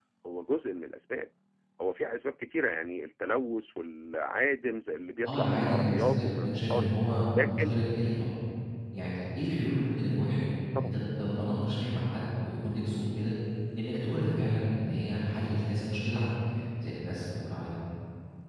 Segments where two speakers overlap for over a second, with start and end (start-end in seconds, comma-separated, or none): 5.2-6.9